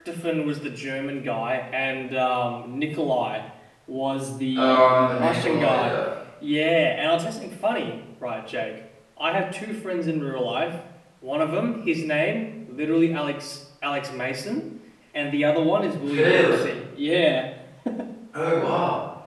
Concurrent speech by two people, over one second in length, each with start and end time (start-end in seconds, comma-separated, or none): 4.5-5.9